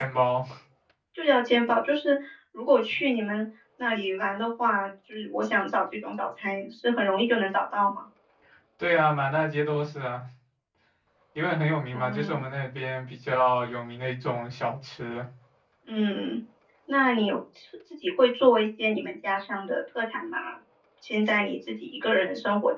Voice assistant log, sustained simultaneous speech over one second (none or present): none